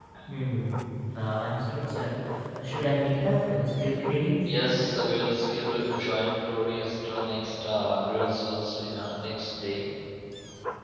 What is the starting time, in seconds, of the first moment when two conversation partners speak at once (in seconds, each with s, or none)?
none